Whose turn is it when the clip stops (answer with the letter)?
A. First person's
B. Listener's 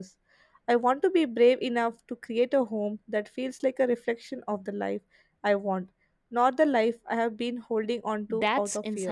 B